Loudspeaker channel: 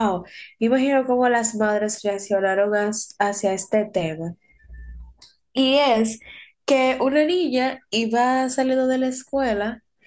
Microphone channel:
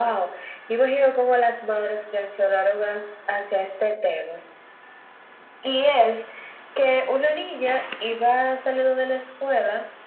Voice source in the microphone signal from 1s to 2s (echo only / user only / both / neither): echo only